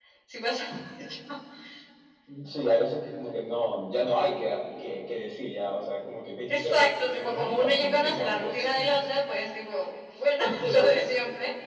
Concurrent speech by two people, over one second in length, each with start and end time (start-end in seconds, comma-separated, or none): 6.5-9.0